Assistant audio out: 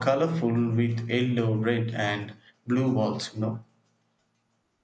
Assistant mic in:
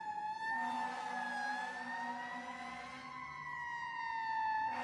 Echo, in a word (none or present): none